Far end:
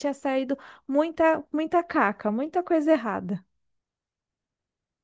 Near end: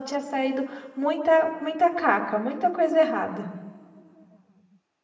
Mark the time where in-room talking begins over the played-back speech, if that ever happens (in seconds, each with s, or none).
none